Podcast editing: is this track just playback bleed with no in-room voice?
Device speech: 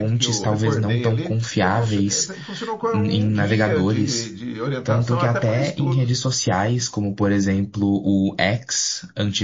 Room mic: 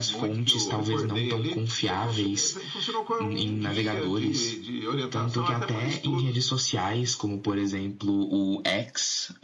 Yes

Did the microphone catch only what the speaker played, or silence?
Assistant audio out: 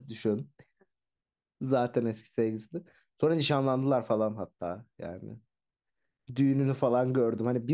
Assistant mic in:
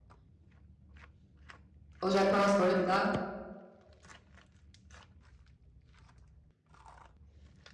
No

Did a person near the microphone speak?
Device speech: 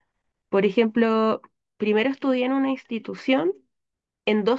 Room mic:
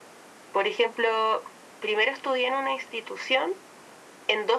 No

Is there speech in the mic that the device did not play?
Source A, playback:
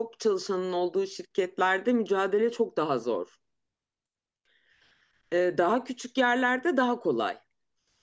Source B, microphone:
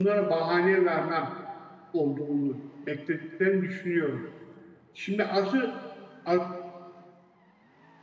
Yes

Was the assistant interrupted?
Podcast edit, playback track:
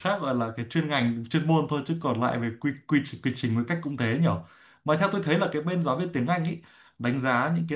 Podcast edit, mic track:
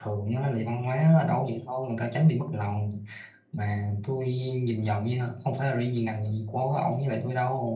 Yes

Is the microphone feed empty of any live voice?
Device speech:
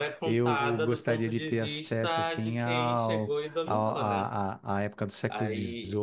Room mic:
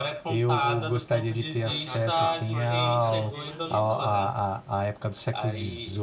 No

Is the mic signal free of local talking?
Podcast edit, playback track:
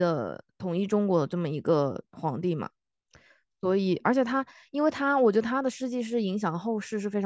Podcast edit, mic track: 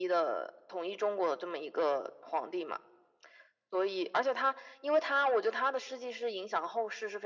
Yes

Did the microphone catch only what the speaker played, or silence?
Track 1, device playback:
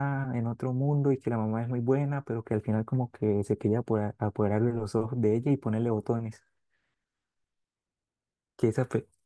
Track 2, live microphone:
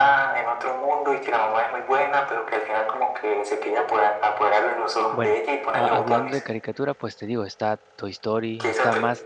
No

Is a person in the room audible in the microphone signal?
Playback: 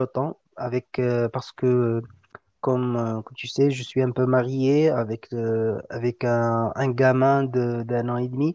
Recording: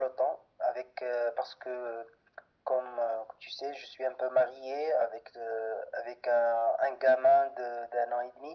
No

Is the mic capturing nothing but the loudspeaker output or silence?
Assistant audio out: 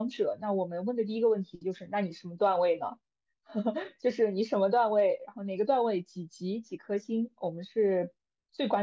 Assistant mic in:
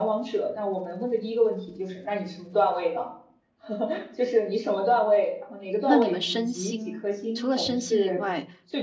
No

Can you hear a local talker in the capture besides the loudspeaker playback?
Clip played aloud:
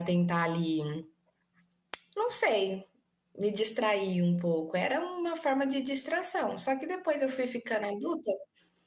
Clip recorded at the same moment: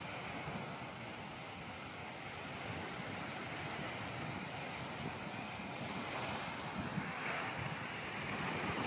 No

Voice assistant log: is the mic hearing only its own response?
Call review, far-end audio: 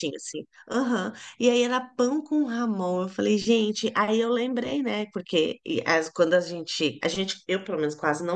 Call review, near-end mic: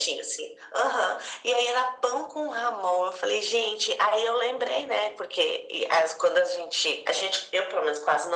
Yes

